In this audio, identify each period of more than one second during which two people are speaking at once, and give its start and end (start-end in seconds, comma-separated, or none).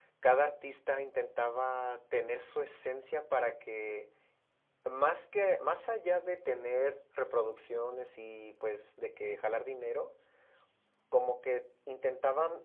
none